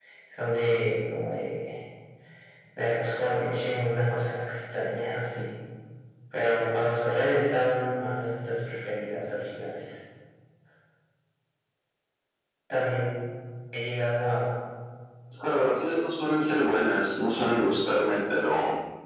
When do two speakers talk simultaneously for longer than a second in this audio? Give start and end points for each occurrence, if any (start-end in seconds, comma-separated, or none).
none